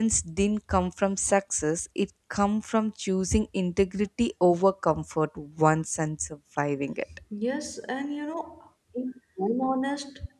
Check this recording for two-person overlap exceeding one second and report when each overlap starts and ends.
none

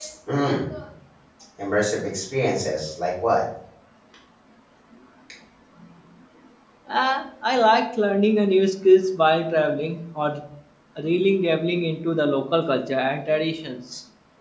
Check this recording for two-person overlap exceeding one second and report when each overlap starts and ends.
none

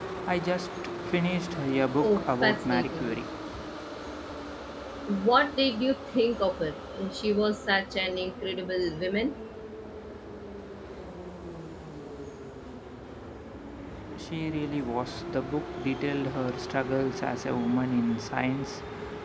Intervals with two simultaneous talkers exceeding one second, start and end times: 2.0-3.2

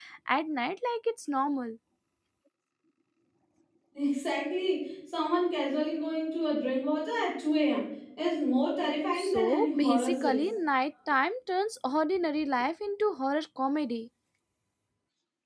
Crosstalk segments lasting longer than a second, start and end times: 9.2-10.5

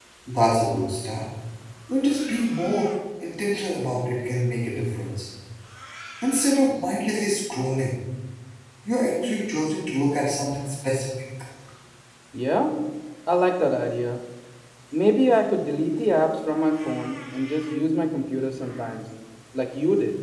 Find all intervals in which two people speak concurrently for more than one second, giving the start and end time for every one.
none

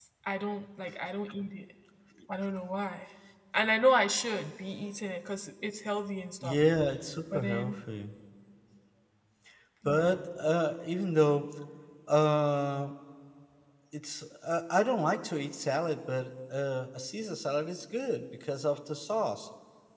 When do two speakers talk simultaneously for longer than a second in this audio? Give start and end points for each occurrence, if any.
none

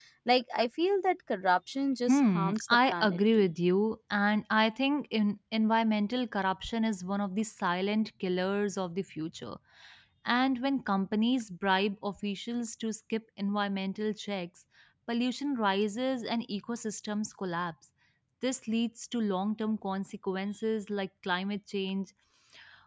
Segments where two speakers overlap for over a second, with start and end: 2.1-3.5

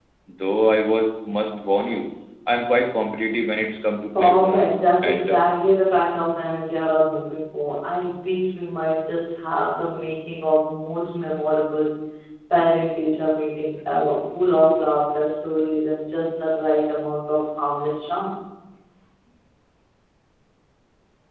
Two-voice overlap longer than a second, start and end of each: 4.2-5.4

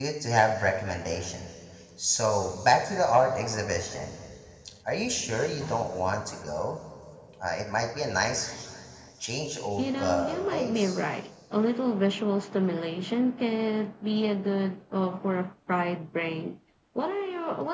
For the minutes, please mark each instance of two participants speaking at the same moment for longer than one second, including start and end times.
9.8-11.0

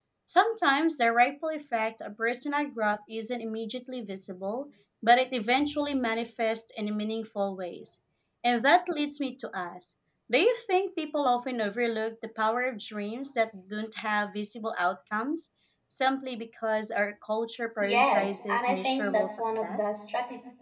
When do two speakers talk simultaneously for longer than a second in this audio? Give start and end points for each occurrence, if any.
17.8-19.8

